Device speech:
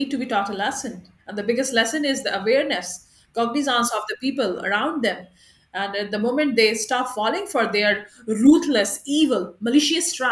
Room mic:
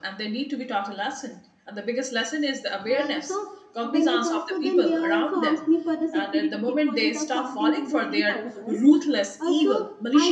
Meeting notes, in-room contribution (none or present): present